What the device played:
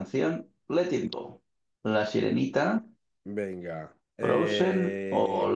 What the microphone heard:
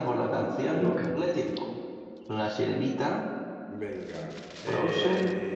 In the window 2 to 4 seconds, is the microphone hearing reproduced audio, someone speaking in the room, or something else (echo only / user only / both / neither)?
echo only